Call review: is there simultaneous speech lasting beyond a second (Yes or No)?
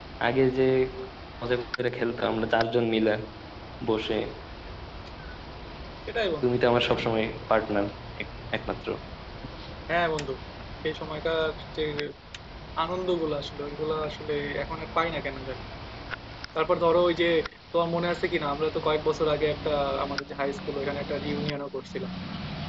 No